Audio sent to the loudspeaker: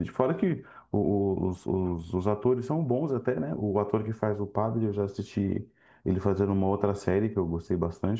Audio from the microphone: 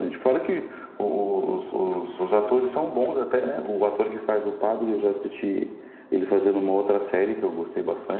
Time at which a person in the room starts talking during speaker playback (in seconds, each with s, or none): none